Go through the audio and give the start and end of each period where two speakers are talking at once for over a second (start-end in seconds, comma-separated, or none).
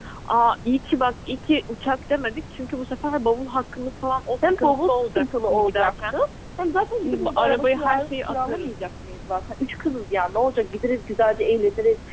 4.4-6.2, 7.0-8.7